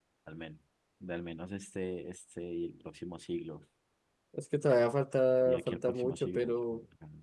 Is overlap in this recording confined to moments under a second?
No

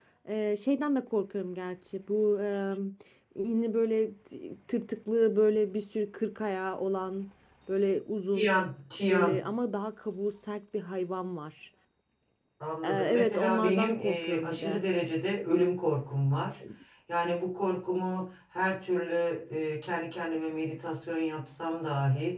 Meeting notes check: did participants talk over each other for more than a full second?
Yes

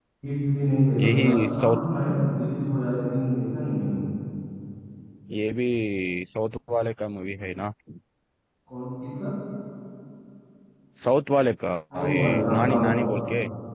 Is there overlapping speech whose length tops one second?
Yes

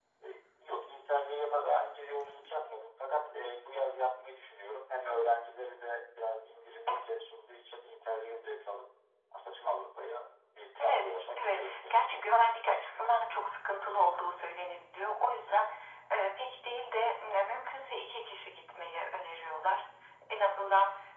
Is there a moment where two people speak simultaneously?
Yes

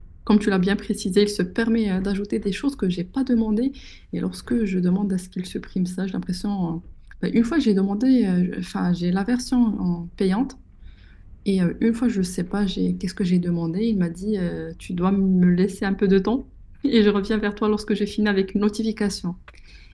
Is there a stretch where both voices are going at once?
No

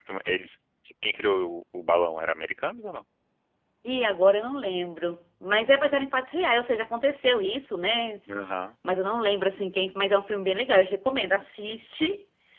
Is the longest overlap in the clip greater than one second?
No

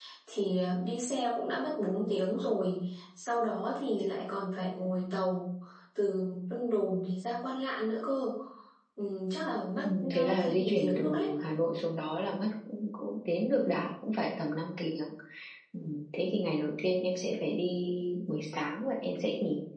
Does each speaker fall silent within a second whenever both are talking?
No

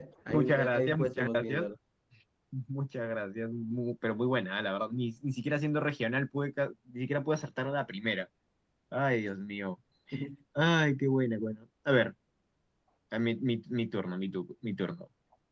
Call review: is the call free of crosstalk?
No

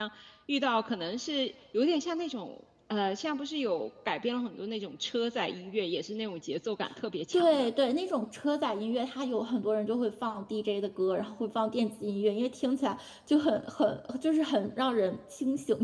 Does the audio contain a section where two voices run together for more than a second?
No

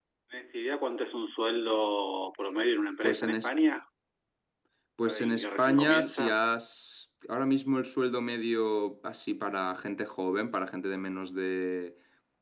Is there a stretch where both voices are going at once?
Yes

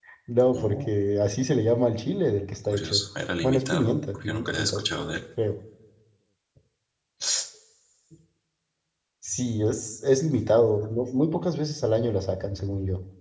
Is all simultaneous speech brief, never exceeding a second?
No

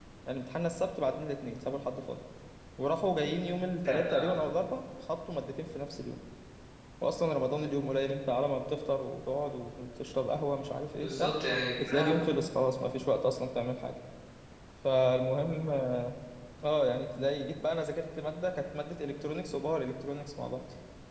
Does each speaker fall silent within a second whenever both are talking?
Yes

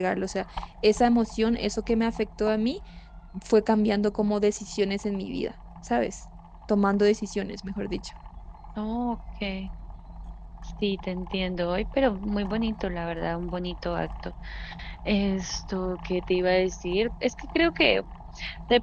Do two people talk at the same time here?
No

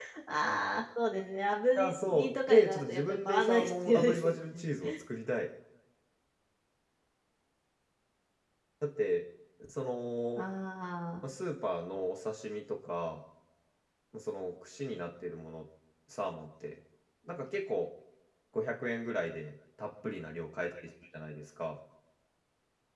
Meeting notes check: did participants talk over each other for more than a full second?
Yes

